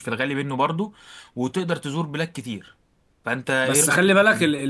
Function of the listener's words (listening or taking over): taking over